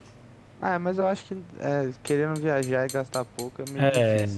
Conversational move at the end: taking over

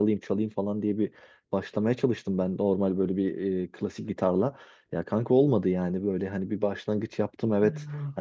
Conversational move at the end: listening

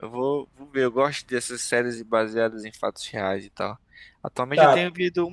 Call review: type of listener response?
listening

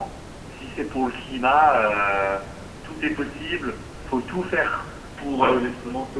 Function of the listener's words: listening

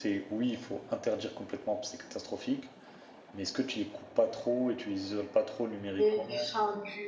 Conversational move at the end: taking over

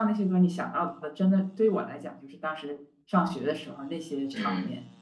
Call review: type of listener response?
taking over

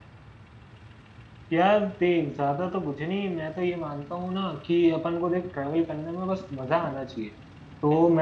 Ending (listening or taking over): listening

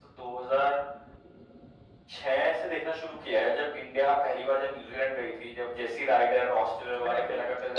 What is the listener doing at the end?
taking over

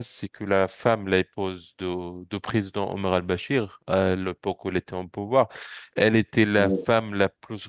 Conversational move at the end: listening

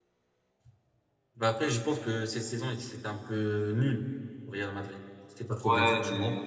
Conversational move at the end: taking over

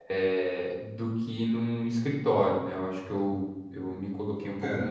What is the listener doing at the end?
taking over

